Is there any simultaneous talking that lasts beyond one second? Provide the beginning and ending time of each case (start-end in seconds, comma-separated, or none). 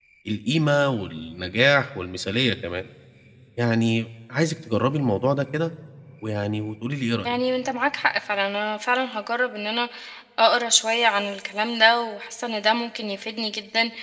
none